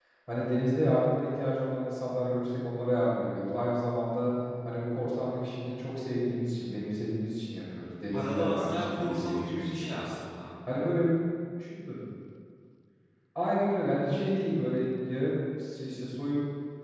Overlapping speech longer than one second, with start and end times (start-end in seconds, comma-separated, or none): 8.1-10.2